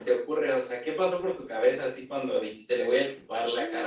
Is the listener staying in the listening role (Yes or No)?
No